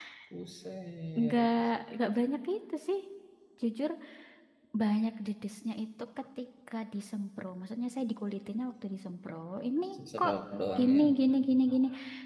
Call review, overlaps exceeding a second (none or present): none